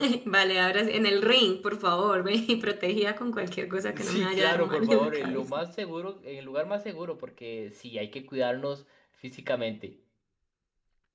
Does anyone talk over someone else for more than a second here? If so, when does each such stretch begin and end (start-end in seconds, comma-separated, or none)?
4.0-5.5